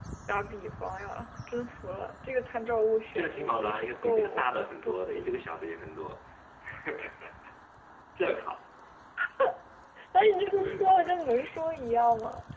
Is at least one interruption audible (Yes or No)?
Yes